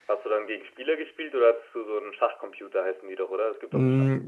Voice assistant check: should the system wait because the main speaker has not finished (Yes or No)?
No